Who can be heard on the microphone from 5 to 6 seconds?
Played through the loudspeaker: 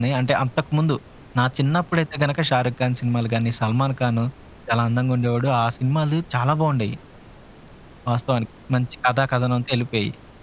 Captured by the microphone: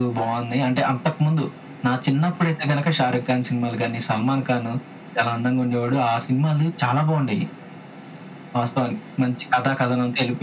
echo only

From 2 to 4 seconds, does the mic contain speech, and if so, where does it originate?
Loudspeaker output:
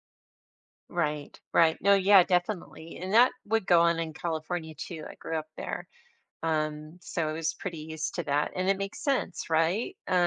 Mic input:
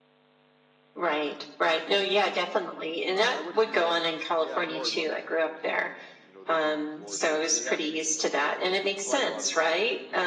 both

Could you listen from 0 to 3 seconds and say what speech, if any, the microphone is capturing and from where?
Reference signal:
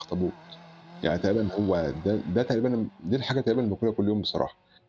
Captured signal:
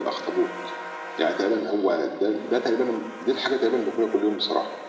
echo only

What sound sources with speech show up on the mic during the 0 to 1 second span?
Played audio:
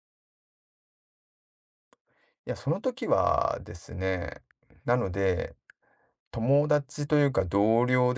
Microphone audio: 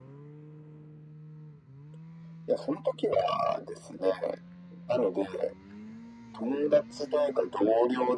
neither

